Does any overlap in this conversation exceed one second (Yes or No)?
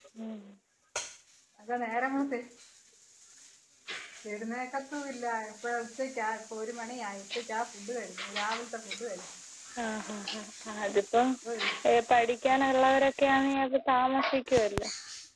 No